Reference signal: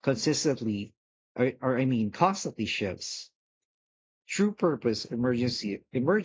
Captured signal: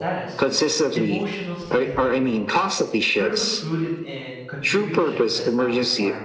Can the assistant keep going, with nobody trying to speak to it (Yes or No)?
No